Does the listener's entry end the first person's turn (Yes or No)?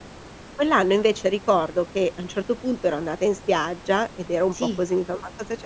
No